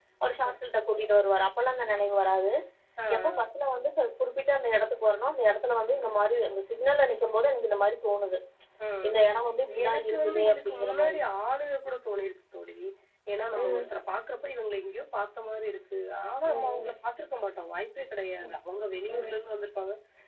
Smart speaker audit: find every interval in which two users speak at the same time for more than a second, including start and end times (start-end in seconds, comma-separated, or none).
9.8-11.2